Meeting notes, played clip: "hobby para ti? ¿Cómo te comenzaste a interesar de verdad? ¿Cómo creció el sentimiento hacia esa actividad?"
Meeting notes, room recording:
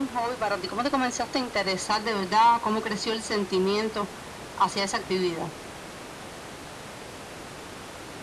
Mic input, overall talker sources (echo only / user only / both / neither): echo only